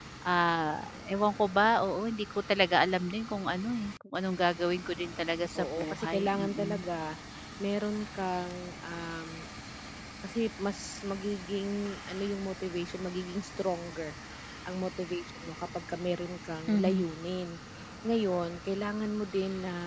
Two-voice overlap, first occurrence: 5.6 s

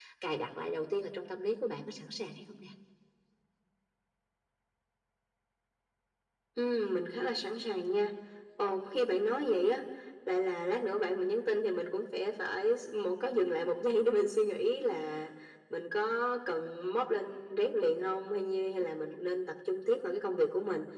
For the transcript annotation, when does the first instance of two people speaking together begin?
none

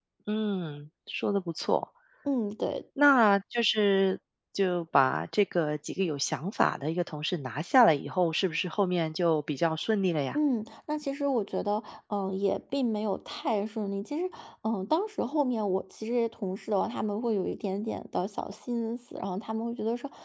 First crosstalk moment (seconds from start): none

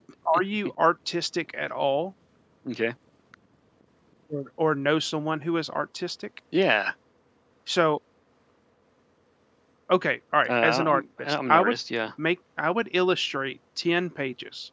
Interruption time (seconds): 10.5 s

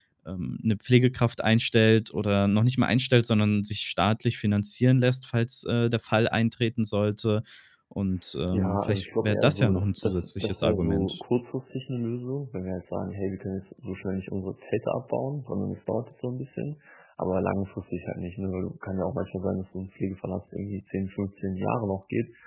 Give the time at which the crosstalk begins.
8.5 s

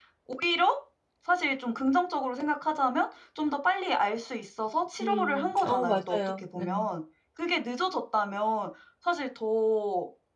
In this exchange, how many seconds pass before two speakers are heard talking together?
5.0 s

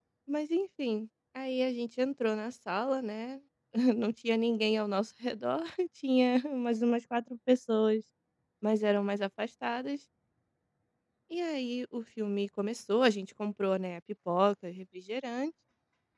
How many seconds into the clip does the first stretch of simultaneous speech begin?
none

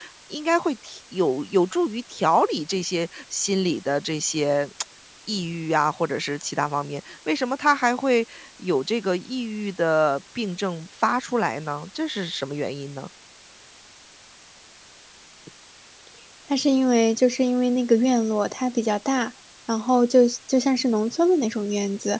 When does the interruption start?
none

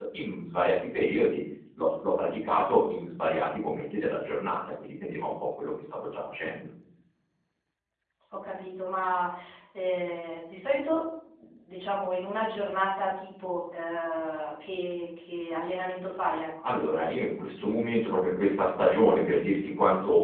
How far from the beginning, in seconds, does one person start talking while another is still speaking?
none

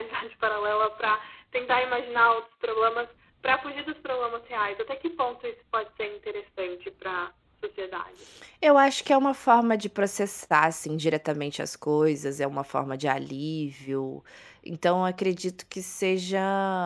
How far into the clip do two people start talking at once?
none

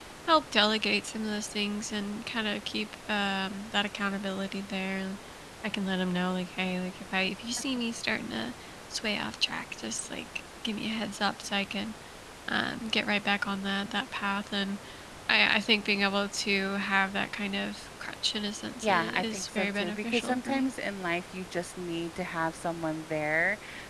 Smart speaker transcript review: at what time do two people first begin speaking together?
18.8 s

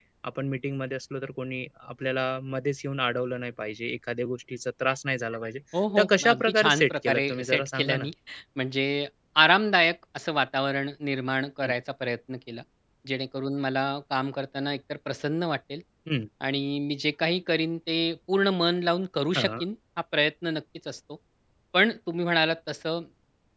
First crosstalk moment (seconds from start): 6.0 s

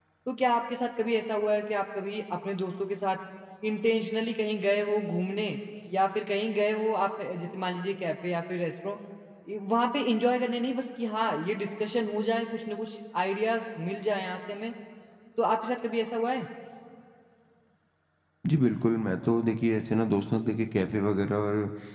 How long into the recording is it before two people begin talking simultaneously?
none

